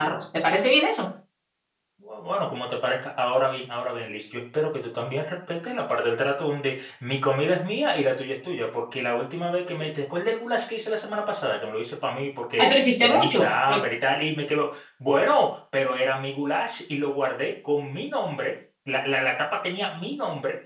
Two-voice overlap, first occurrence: 12.6 s

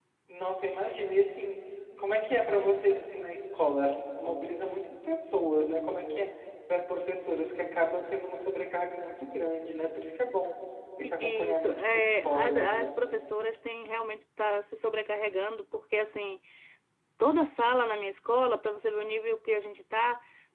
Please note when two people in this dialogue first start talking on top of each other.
11.0 s

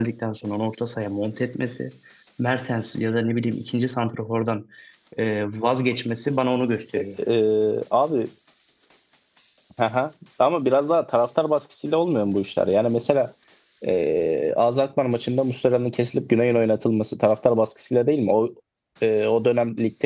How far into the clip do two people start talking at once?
none

